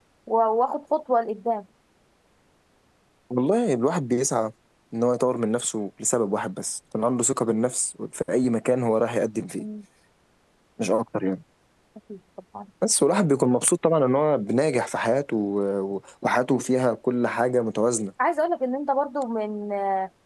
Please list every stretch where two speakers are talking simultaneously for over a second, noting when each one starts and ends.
none

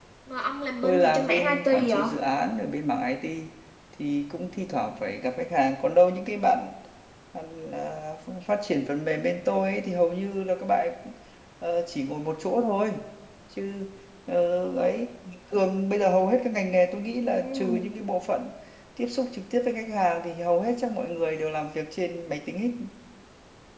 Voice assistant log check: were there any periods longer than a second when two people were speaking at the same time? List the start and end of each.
0.8-2.1

